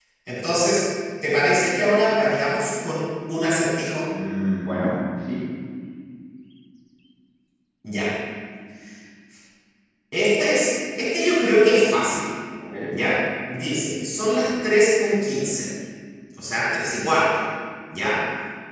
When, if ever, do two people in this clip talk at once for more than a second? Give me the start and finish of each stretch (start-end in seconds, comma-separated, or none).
none